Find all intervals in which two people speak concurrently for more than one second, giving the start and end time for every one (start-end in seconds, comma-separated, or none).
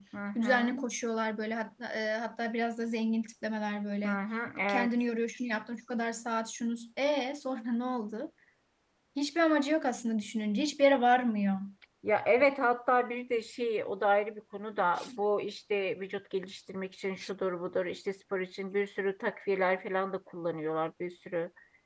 none